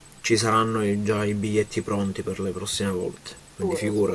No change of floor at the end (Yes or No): No